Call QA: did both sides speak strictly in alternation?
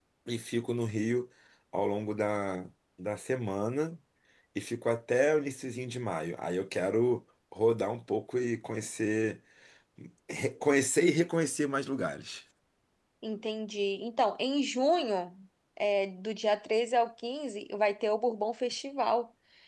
Yes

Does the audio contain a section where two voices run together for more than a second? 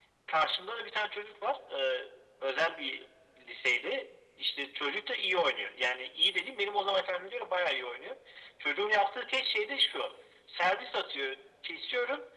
No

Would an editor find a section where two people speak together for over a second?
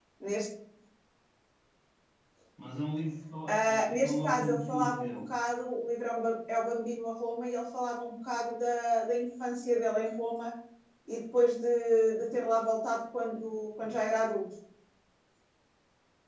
Yes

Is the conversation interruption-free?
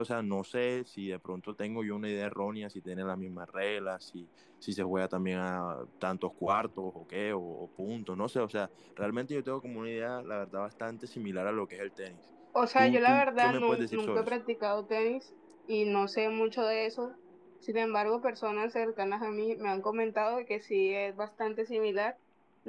No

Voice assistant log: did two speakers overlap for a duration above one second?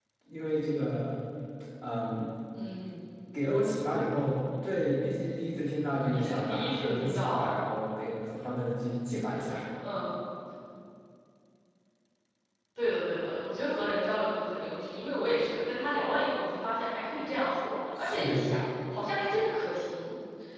Yes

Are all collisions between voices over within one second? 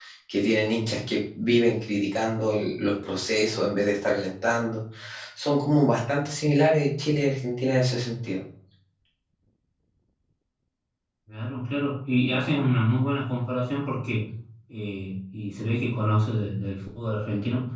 Yes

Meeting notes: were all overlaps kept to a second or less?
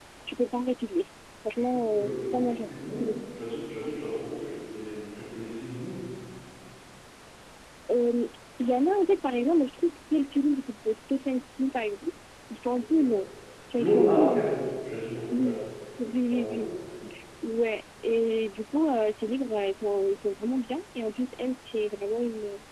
No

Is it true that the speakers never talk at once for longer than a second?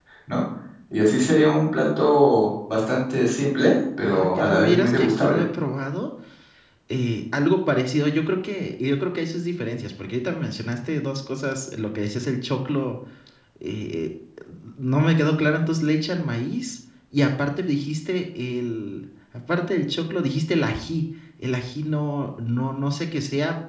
No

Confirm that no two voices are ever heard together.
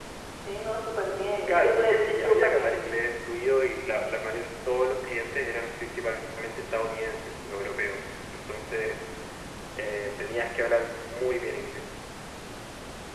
No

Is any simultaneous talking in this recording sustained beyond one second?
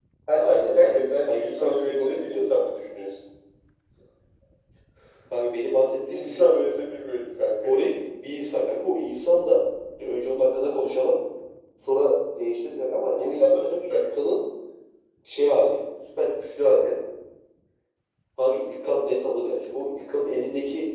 Yes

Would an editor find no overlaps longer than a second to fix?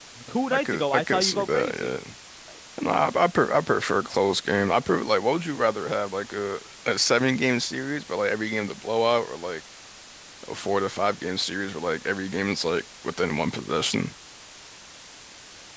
No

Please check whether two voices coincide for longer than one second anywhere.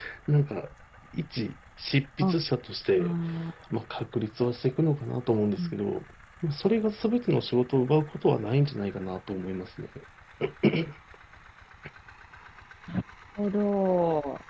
No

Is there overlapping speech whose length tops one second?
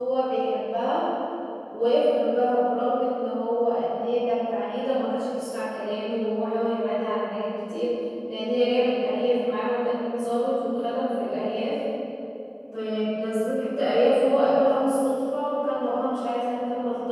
No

